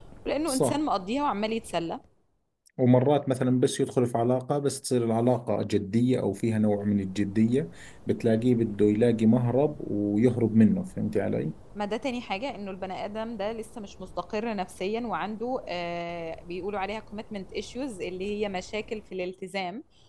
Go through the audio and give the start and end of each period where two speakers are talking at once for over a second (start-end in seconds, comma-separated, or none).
none